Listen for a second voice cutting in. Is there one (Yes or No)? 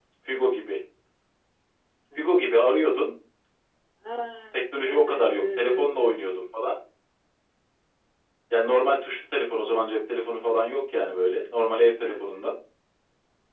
Yes